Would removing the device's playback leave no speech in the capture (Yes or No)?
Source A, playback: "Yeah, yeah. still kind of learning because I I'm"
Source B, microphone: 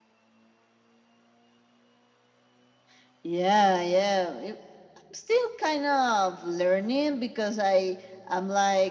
Yes